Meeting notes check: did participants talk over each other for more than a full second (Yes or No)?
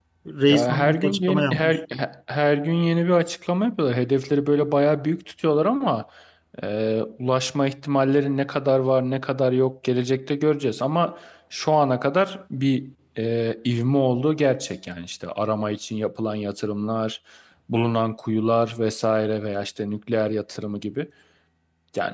Yes